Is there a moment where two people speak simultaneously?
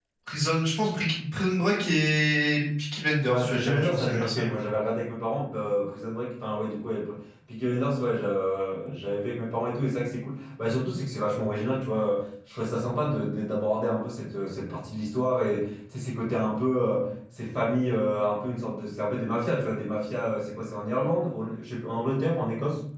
Yes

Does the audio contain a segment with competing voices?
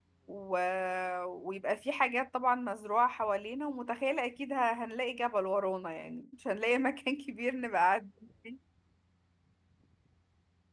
No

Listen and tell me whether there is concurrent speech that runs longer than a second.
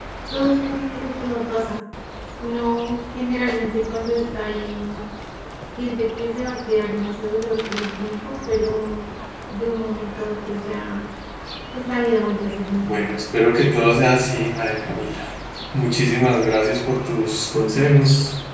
No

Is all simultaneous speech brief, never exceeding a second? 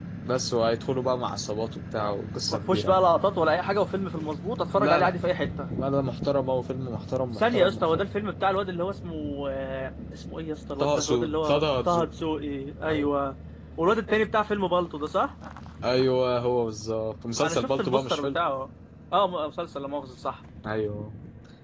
No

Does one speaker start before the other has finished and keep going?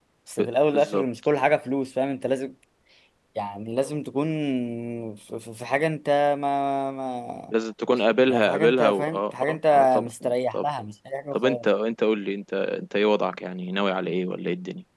Yes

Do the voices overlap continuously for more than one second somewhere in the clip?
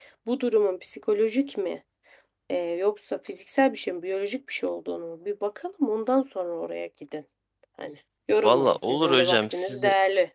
Yes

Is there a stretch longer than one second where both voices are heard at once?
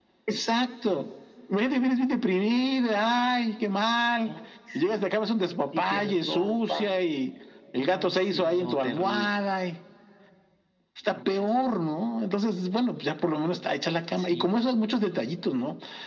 Yes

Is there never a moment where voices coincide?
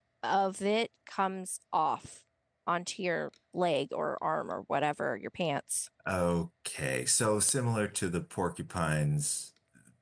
Yes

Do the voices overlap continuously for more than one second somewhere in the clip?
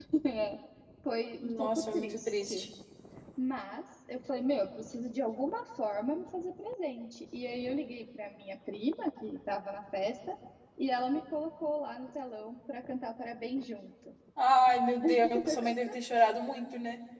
Yes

